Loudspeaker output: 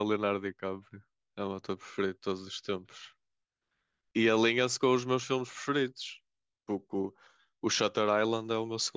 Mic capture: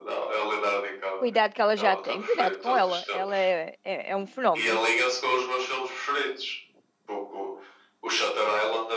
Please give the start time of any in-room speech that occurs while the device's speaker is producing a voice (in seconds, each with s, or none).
1.2 s